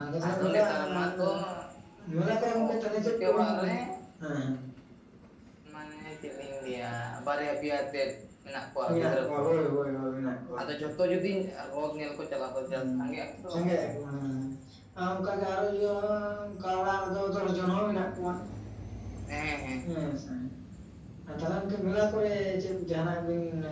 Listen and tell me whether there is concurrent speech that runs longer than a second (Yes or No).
Yes